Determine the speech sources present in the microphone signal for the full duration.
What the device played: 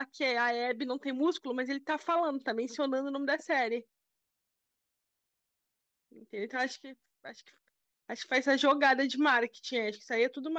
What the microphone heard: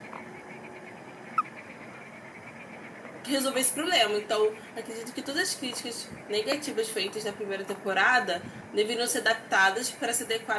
user only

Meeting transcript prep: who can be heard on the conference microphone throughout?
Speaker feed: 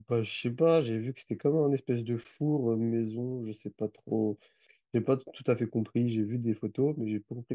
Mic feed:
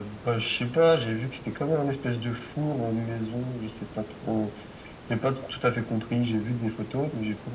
echo only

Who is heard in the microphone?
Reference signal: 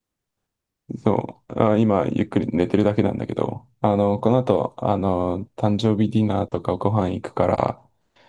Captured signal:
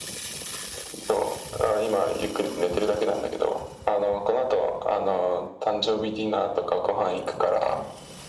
echo only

